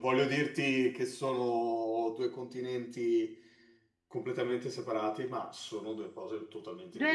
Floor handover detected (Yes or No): Yes